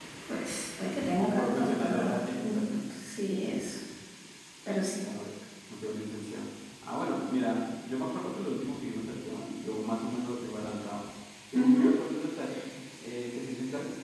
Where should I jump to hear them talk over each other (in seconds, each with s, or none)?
1.2 s